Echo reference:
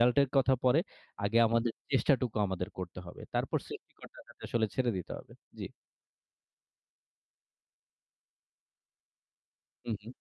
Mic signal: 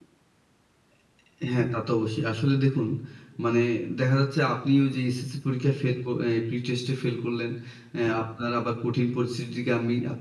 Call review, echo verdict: none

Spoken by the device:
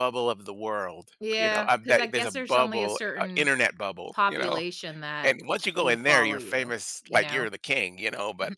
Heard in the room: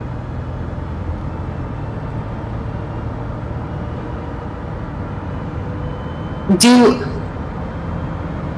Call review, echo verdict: none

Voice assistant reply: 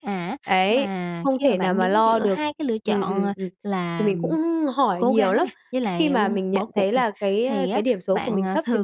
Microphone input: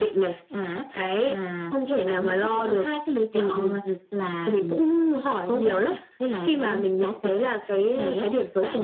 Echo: present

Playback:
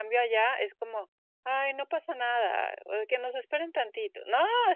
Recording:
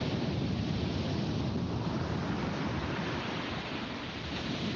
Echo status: none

